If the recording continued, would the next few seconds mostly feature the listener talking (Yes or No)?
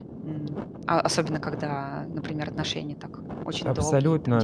Yes